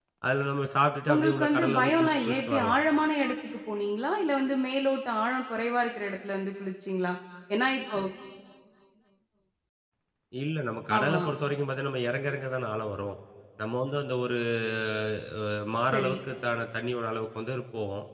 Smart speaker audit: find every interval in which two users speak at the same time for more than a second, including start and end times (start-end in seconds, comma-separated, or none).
1.1-2.8